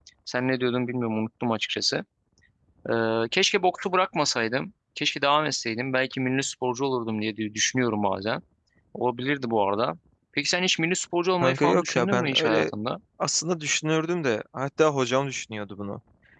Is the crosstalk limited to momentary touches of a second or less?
No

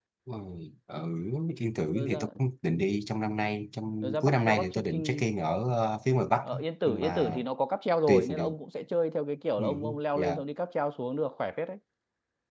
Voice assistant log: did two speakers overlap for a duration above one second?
Yes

